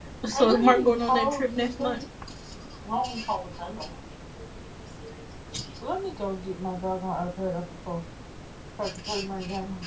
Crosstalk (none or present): present